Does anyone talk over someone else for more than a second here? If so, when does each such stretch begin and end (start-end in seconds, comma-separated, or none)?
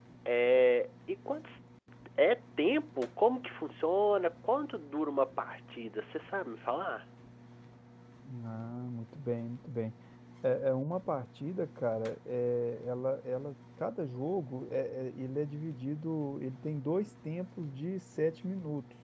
none